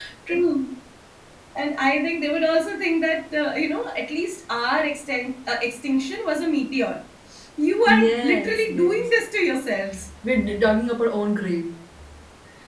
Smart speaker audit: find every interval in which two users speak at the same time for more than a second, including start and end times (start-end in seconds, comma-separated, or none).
7.9-9.1